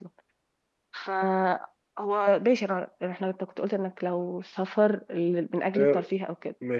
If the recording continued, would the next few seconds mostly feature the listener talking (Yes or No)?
Yes